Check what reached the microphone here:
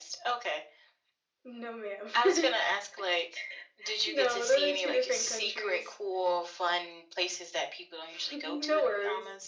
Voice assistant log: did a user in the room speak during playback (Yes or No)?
No